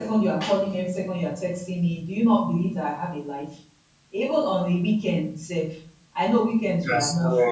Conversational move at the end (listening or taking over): listening